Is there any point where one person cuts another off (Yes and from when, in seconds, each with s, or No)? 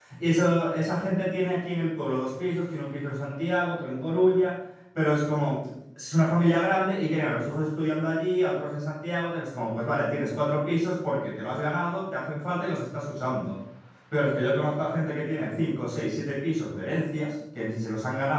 No